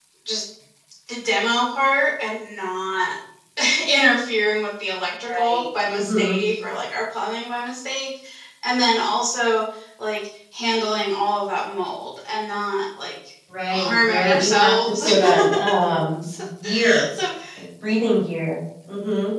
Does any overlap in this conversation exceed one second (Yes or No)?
Yes